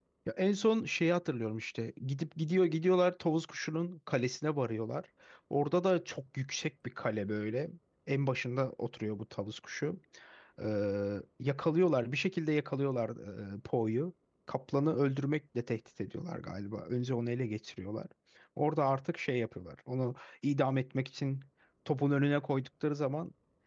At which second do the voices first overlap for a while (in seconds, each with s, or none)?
none